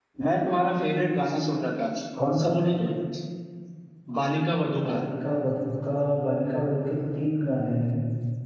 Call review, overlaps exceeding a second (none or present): none